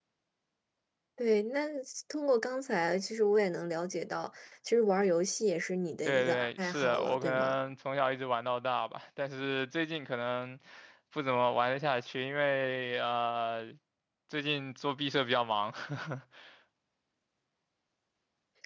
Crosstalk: present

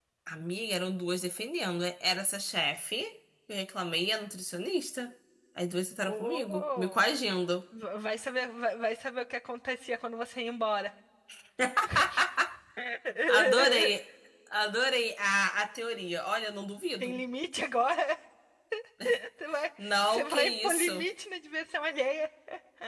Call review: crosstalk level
present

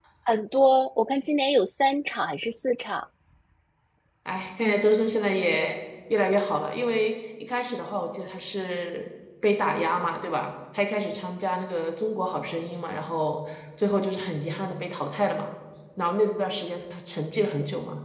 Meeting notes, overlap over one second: none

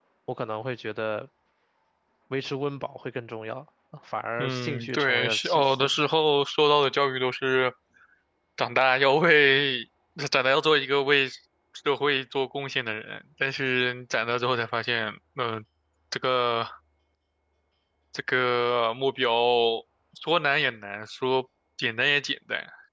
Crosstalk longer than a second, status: present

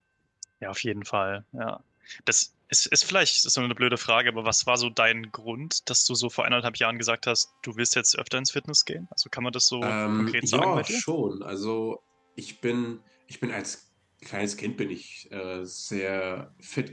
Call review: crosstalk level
present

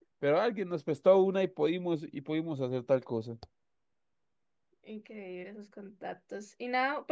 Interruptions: none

